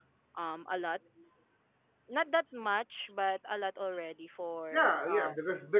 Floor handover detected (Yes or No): Yes